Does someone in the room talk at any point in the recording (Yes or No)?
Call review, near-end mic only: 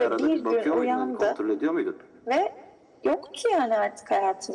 No